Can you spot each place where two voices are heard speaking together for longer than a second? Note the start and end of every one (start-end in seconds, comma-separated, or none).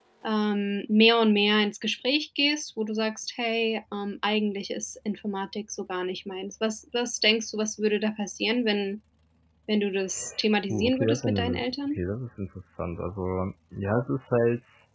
10.7-12.0